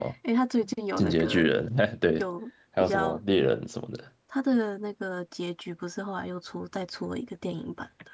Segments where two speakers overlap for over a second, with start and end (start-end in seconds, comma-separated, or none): none